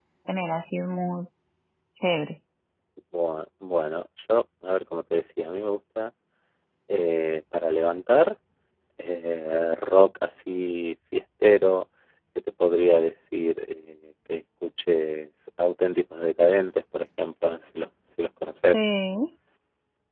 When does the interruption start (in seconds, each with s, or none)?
none